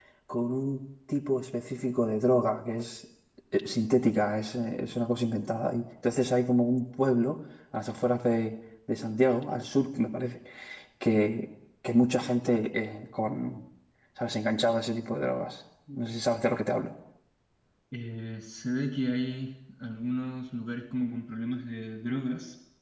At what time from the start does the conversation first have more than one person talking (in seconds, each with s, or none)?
none